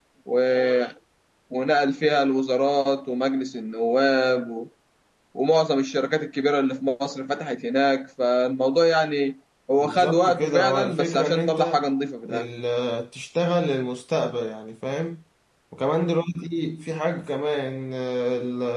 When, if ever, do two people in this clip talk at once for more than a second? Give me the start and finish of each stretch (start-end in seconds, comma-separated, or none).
9.8-11.8